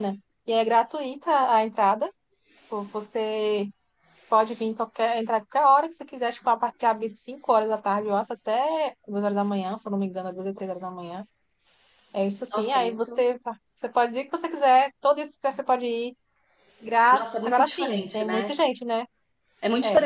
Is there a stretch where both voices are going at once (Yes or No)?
Yes